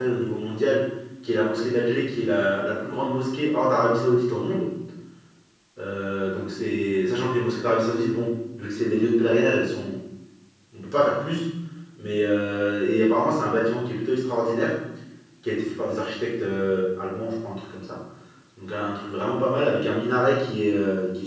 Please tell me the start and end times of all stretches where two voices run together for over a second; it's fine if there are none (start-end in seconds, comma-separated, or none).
none